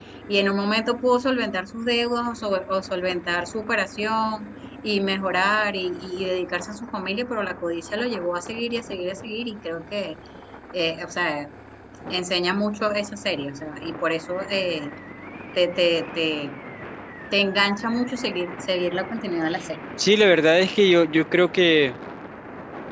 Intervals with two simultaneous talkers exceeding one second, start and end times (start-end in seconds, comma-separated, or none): none